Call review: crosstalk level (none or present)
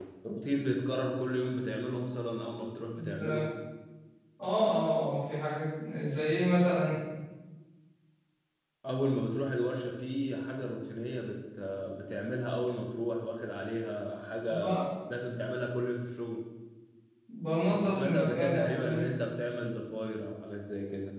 present